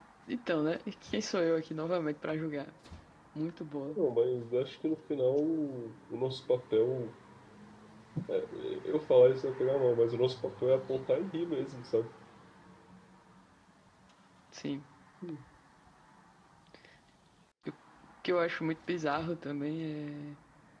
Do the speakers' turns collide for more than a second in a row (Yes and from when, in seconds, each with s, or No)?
No